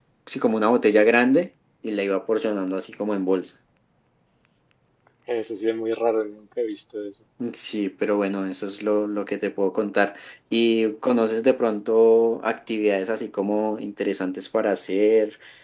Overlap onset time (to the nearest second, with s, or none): none